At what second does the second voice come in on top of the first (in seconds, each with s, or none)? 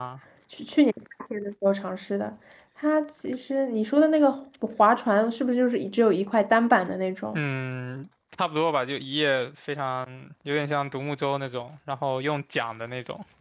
none